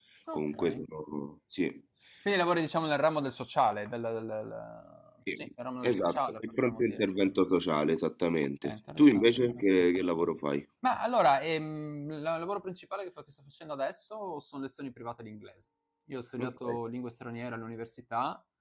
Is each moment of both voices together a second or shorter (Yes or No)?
No